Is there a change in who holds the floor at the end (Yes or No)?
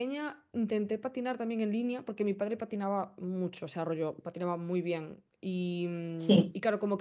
No